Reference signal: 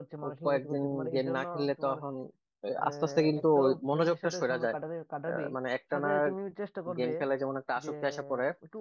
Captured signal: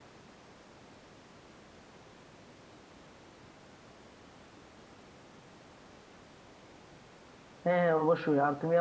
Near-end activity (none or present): present